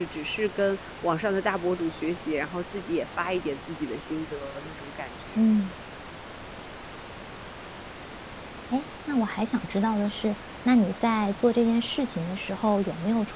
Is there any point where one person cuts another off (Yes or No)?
No